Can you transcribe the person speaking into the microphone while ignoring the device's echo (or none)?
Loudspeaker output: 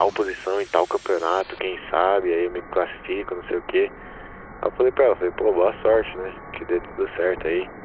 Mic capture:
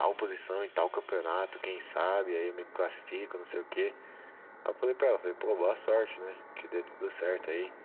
none